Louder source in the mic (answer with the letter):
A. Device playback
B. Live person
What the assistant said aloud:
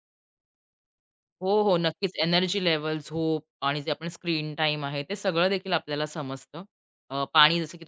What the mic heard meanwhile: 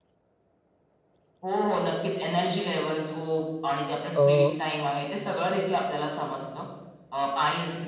B